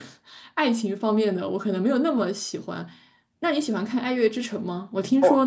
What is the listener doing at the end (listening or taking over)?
listening